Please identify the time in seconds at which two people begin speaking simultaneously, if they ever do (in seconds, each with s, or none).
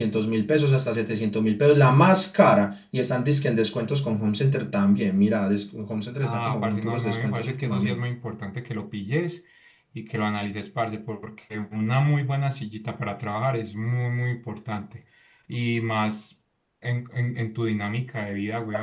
6.2 s